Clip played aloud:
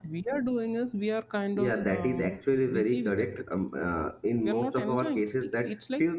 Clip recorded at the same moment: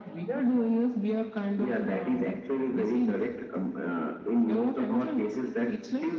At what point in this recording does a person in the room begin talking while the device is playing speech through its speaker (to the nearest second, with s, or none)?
none